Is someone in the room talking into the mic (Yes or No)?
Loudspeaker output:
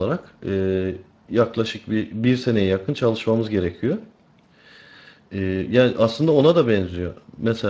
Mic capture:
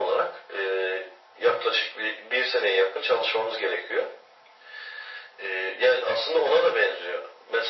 No